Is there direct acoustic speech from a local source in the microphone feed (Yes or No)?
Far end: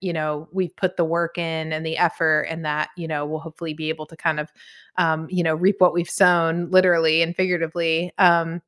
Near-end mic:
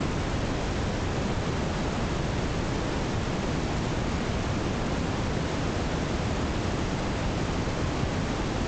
No